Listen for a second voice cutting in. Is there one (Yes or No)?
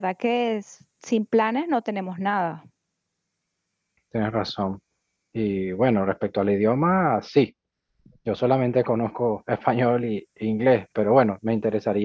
No